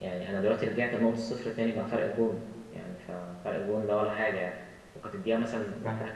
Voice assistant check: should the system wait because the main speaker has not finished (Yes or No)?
Yes